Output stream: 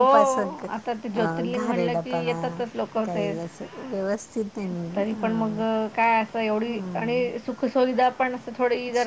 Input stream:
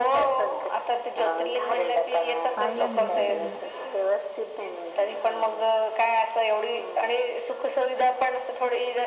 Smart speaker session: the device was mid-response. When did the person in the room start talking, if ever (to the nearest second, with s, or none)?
3 s